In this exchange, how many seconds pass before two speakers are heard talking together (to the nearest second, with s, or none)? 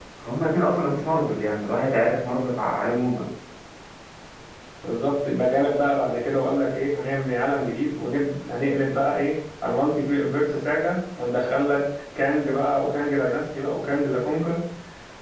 none